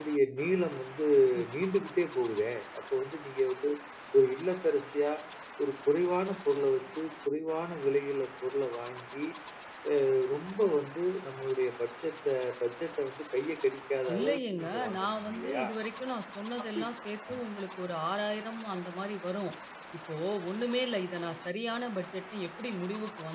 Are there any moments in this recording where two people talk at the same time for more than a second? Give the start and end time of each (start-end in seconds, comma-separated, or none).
14.1-15.6